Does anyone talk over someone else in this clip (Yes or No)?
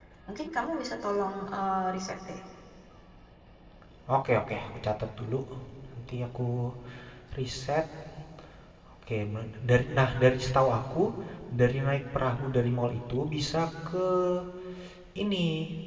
No